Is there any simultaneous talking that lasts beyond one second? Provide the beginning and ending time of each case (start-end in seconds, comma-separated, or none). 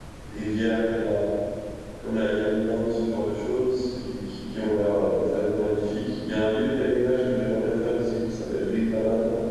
none